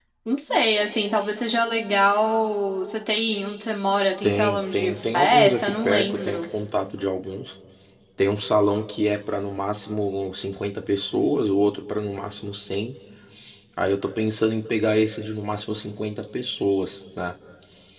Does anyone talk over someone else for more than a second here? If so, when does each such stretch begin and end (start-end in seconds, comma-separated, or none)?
4.2-6.5